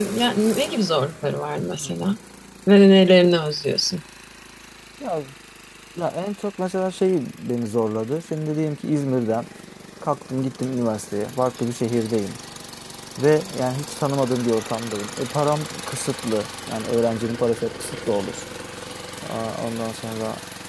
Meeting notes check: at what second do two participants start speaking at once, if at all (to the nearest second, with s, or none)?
none